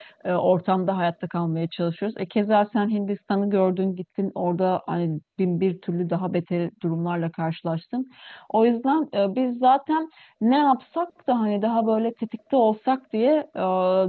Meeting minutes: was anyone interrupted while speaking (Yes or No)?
No